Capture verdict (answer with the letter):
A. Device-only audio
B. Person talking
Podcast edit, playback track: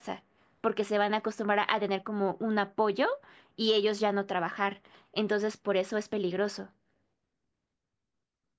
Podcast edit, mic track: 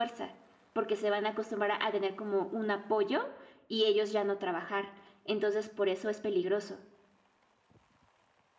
A